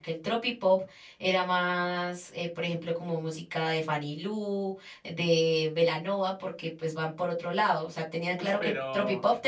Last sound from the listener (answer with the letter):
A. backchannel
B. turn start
A